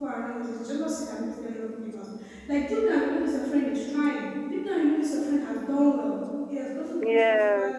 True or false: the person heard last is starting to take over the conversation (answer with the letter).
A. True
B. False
B